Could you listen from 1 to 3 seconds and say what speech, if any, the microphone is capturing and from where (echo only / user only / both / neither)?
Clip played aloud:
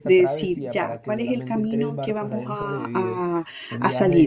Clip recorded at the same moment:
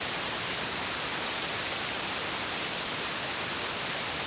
neither